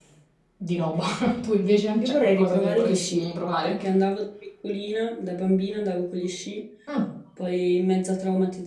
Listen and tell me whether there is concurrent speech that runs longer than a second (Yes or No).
Yes